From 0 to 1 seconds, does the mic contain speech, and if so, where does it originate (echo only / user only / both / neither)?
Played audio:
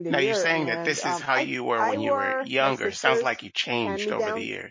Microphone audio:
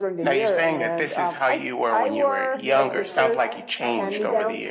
echo only